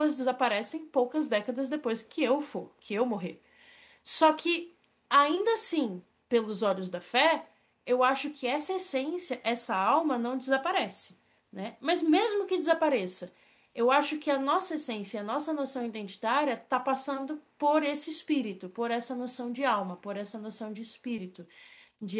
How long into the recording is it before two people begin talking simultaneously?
none

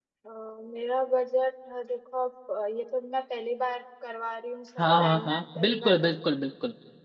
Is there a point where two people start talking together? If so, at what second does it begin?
4.8 s

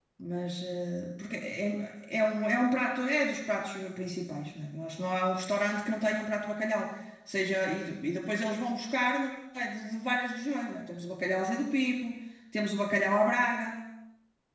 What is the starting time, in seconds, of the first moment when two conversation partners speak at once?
none

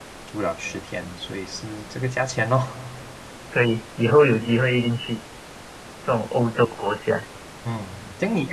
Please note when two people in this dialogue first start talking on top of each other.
none

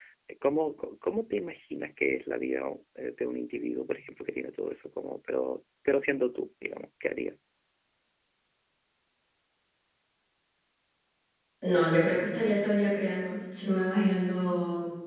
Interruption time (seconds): none

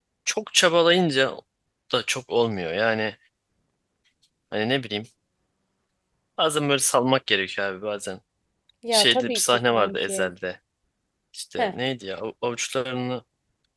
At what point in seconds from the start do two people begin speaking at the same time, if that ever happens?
8.9 s

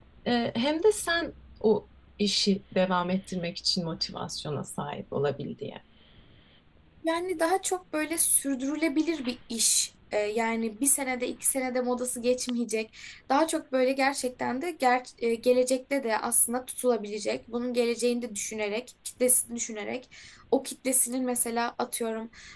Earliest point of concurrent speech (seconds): none

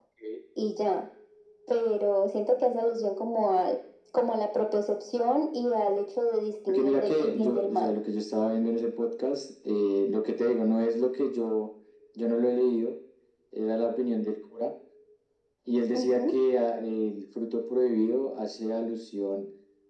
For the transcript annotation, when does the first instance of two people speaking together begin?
6.7 s

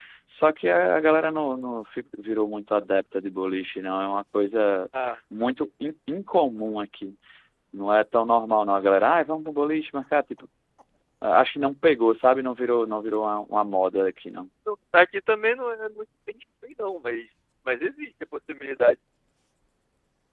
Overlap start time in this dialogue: none

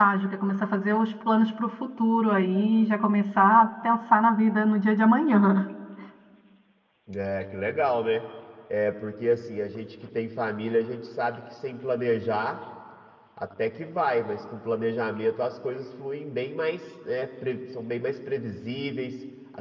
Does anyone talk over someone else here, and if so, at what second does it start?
none

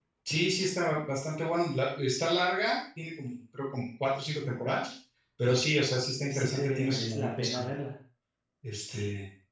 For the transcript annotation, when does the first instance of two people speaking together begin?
6.3 s

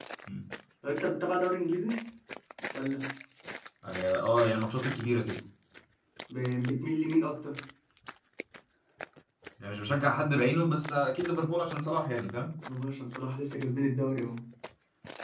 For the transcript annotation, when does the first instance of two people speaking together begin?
none

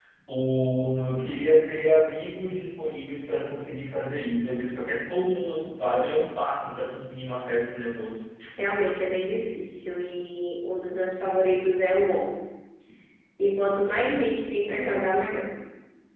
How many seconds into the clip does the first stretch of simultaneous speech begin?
none

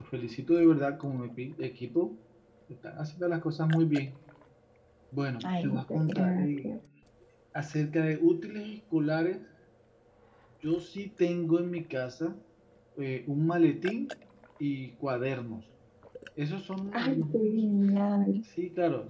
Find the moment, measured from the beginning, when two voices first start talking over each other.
5.5 s

